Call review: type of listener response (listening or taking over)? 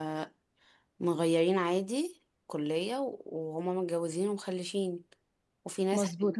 taking over